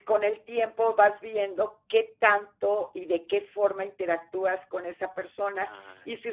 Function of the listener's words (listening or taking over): listening